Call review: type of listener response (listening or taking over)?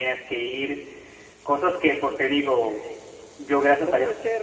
taking over